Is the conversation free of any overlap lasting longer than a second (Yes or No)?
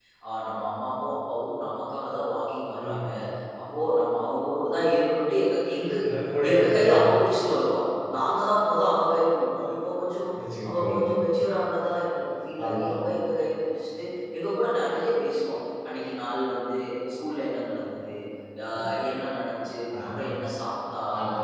Yes